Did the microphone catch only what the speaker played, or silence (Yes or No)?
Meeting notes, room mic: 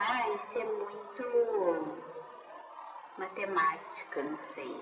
Yes